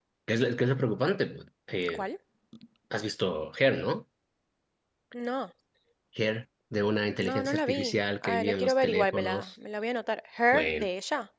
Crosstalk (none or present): present